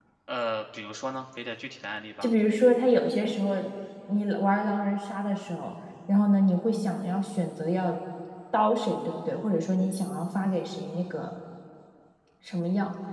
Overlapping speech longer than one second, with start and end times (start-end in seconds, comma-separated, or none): none